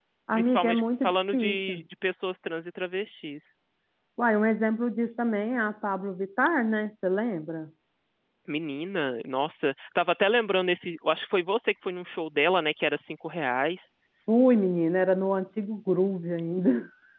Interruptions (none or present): present